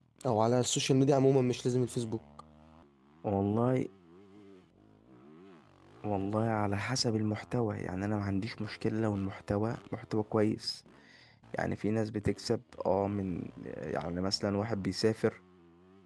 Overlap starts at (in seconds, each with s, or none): none